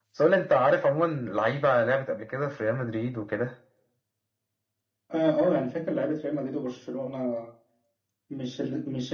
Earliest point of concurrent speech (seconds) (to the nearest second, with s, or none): none